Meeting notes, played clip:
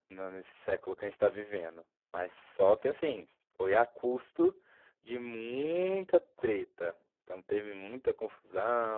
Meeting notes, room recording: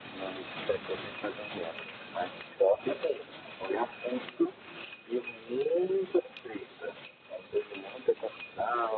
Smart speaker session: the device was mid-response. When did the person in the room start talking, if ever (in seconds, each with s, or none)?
none